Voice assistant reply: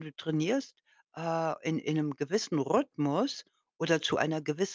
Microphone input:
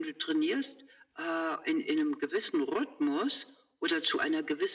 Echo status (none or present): present